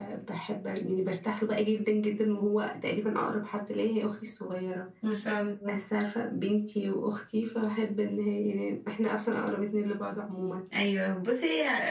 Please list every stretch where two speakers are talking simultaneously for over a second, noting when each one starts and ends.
none

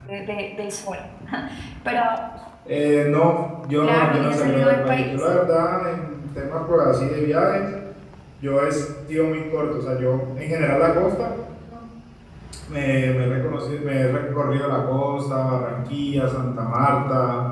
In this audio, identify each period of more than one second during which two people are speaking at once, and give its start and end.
3.8-5.3

